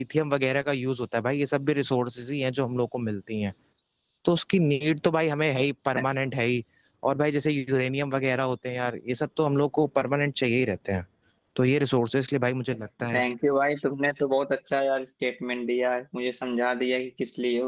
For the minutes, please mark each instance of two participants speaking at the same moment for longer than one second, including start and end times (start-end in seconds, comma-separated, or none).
none